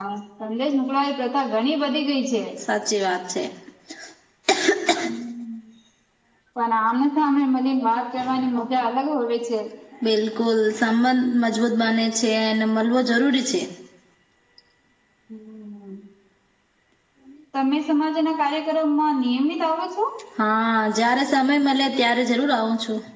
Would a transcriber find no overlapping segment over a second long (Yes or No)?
Yes